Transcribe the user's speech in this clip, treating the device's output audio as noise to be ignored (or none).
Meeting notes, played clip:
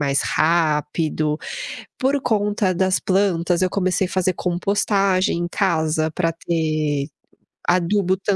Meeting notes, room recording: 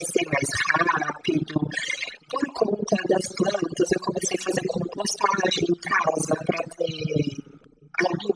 none